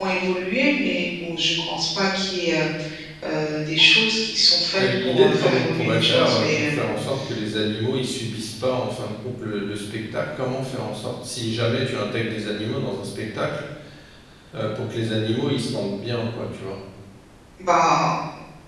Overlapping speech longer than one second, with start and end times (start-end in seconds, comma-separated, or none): 4.8-6.9